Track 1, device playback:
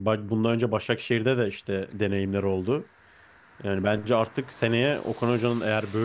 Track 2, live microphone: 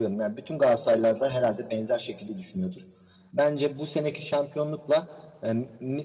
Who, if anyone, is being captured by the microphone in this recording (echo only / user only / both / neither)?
user only